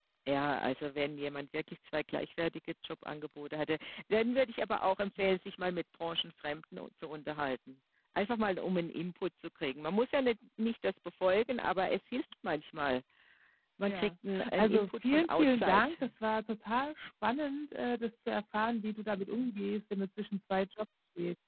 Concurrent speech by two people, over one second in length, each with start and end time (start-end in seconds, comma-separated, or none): 14.6-15.9